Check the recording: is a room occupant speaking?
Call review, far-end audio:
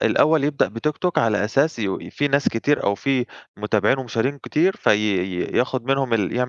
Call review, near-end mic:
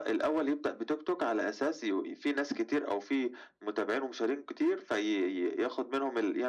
No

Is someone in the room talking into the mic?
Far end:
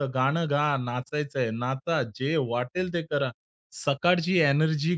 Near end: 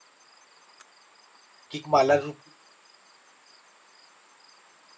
Yes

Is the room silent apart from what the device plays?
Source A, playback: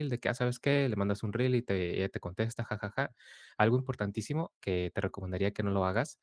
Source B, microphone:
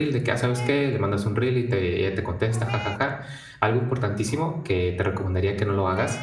Yes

